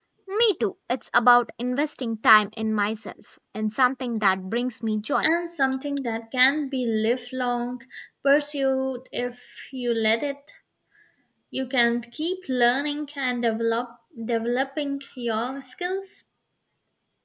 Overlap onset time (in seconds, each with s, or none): none